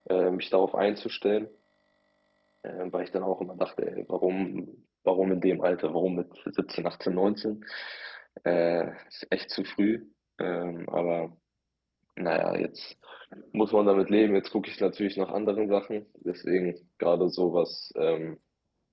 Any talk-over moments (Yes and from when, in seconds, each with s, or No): No